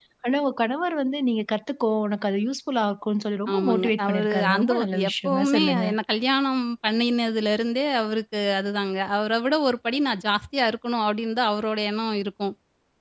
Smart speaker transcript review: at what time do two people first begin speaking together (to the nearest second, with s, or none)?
3 s